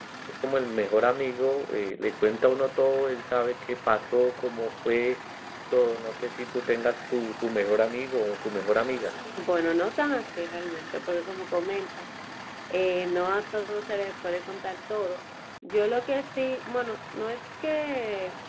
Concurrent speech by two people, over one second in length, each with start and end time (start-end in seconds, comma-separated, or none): none